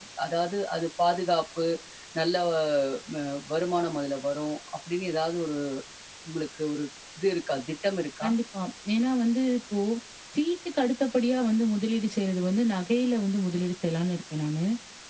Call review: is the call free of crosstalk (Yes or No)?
Yes